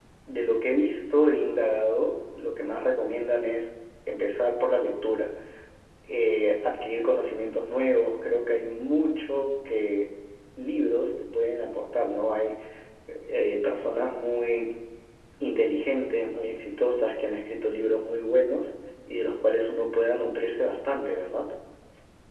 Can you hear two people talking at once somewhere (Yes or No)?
No